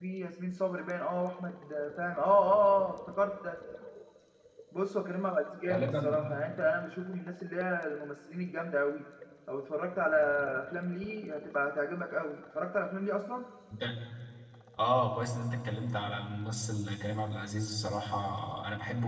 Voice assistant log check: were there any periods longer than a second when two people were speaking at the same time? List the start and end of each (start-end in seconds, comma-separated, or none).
none